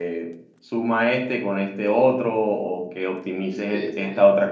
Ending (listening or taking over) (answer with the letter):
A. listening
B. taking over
A